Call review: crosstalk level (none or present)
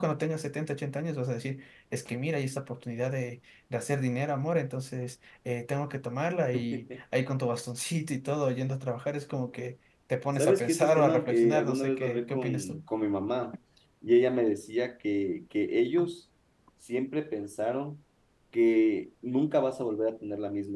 present